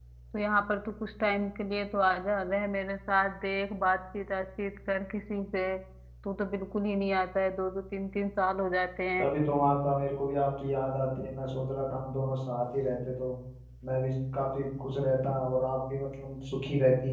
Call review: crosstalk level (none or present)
none